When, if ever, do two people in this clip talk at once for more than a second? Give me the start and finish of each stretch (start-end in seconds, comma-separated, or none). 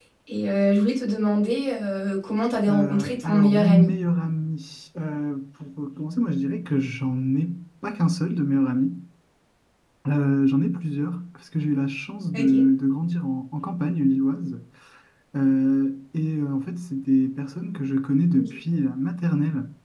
2.7-3.9